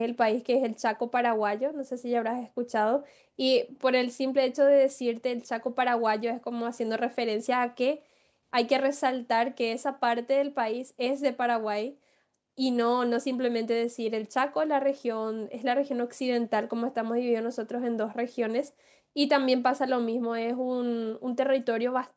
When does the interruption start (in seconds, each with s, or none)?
none